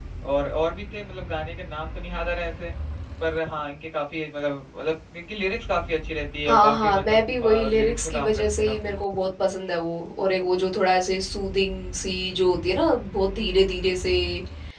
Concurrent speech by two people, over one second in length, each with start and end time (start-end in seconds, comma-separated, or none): 6.5-8.9